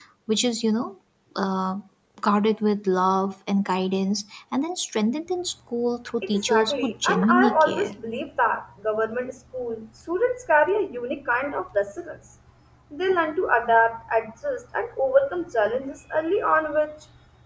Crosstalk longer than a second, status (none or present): present